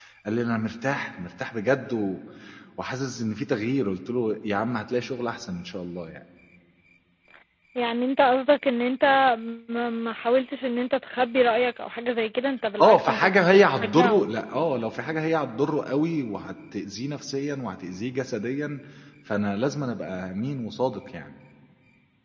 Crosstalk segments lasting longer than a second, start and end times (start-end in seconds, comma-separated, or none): 12.8-14.3